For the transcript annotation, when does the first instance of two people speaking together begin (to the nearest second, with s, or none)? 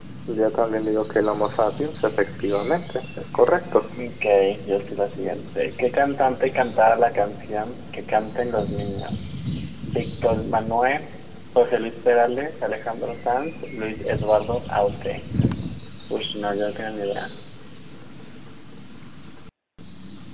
none